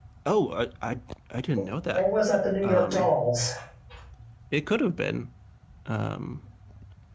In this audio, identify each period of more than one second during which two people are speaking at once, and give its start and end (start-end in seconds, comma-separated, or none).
none